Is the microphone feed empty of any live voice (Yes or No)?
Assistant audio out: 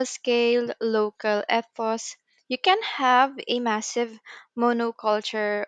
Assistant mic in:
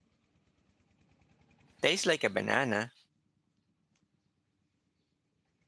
No